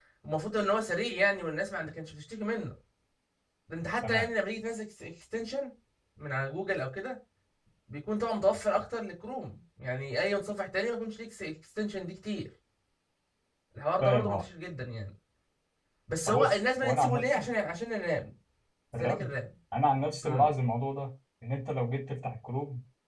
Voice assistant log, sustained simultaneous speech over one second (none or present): present